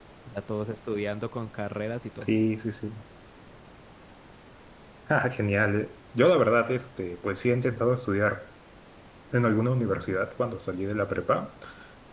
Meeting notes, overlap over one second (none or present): none